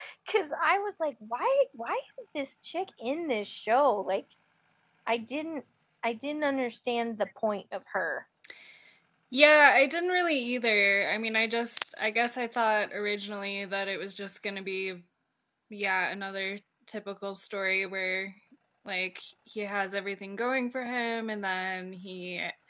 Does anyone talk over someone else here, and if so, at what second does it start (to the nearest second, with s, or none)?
none